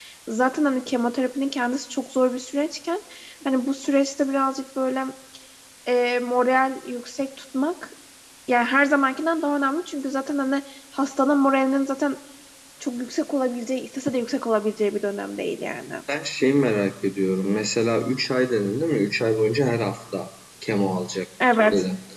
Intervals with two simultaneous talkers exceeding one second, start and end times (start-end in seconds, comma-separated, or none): none